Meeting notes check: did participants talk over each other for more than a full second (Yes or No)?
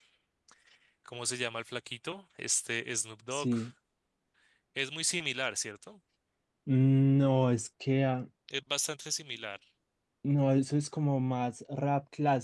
No